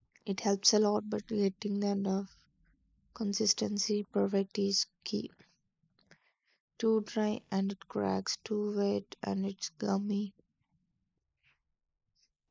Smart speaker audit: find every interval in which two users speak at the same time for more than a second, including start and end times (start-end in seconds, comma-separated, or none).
none